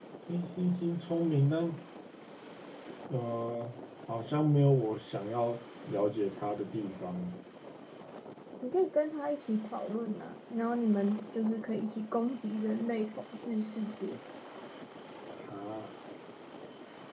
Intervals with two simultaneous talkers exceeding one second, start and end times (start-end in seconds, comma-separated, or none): none